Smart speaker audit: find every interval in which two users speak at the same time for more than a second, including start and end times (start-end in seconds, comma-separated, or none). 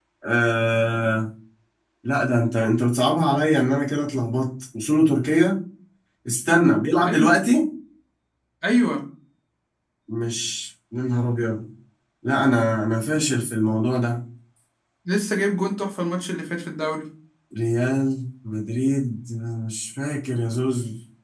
none